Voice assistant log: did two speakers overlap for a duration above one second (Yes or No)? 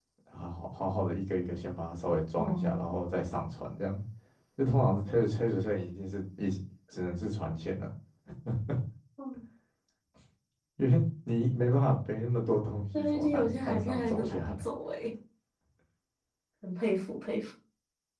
Yes